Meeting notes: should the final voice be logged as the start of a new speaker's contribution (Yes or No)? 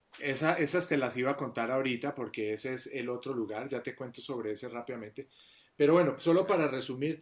No